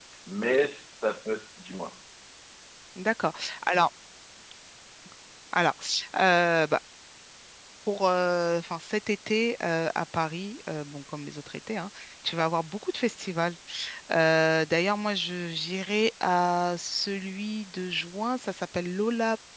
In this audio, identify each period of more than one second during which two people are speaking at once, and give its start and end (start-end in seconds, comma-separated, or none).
none